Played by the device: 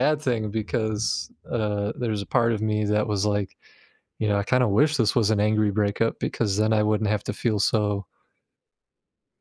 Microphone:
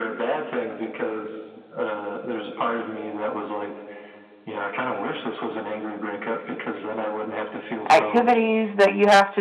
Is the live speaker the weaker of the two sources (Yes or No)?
No